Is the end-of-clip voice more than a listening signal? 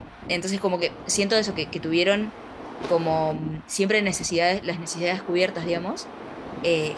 No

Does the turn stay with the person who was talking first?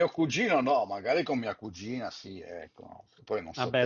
No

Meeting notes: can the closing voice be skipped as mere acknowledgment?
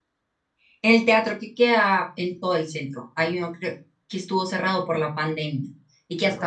Yes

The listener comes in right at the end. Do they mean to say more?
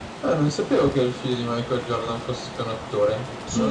Yes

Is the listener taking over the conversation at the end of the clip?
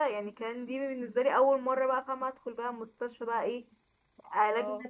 No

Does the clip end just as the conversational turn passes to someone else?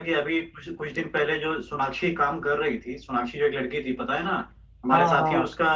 No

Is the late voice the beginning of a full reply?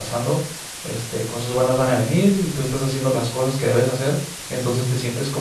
No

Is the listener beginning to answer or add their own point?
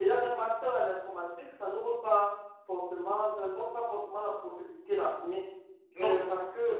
No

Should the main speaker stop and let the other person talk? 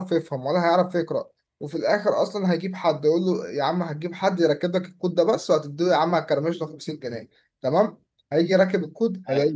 No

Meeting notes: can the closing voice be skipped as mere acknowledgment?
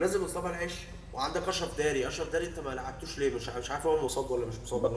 No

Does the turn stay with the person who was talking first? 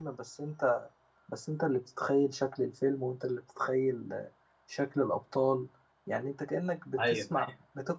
Yes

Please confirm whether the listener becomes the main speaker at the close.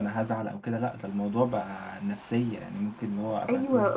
Yes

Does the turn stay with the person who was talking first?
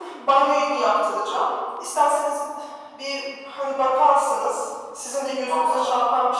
Yes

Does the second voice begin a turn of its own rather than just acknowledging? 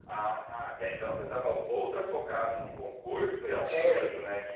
No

